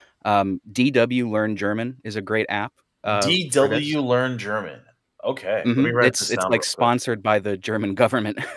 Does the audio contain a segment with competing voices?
Yes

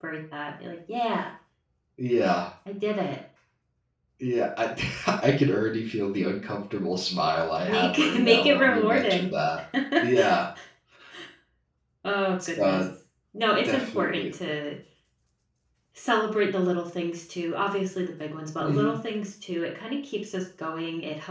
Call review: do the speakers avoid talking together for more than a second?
No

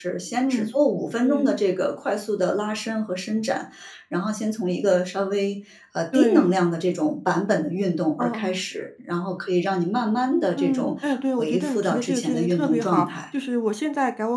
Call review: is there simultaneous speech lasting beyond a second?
Yes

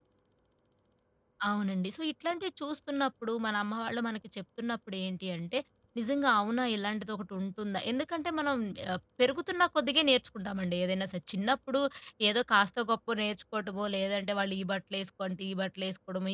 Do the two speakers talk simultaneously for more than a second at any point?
No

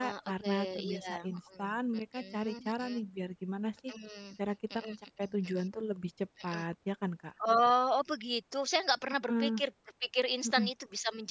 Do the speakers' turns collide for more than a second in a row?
Yes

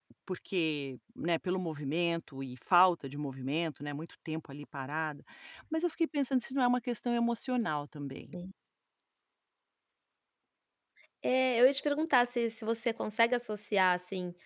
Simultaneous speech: No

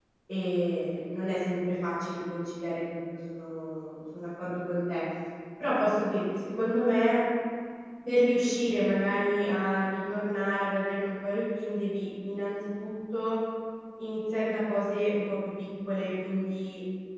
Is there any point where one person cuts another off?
No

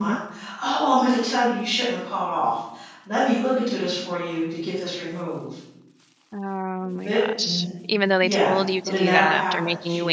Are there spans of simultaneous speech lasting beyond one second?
Yes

